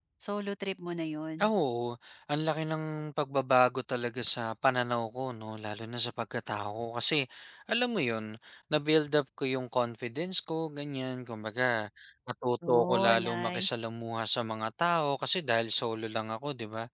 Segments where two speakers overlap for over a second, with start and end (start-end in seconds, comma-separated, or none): 12.7-13.9